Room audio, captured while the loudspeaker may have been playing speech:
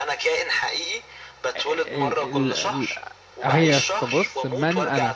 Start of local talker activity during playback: 2 s

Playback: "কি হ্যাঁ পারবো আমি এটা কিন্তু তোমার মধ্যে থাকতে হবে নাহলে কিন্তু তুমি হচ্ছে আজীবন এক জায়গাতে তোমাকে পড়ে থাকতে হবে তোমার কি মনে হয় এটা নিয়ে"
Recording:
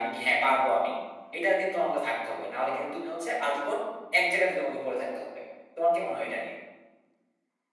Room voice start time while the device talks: none

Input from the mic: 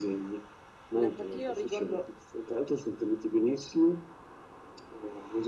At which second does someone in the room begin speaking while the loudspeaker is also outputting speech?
1 s

